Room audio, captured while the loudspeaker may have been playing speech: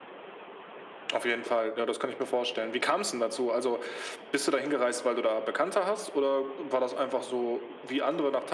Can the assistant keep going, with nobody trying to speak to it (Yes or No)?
Yes